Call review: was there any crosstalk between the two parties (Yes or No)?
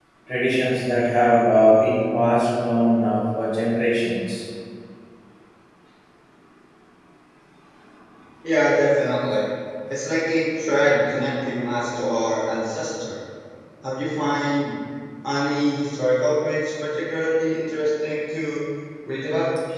No